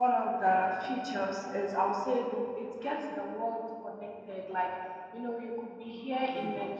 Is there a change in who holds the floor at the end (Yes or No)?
No